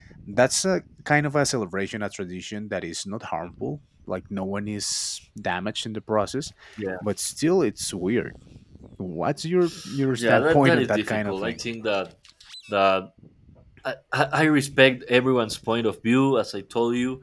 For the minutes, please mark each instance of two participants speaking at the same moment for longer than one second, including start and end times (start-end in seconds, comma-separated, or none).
10.2-11.6